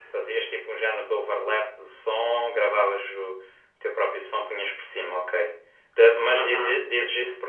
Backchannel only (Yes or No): Yes